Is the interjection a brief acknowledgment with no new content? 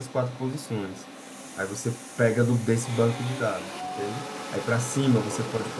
Yes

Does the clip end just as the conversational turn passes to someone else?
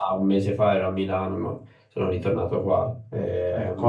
Yes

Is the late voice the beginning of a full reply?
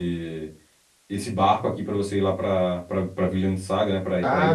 Yes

